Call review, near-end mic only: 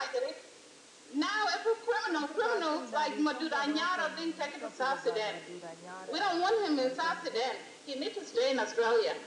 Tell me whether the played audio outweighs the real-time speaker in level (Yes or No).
Yes